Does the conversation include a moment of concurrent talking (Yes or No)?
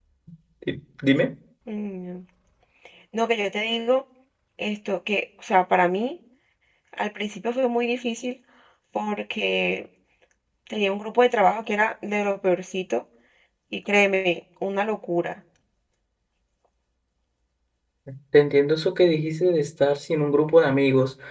No